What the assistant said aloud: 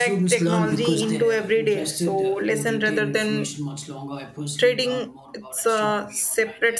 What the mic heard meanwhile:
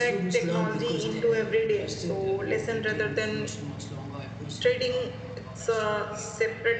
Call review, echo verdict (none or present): present